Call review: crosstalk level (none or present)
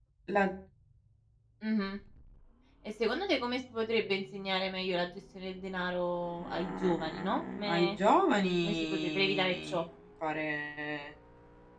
present